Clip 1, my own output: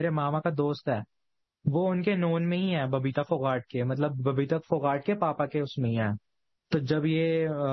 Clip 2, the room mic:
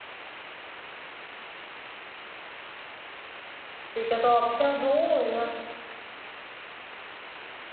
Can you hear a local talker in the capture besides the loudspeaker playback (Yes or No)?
Yes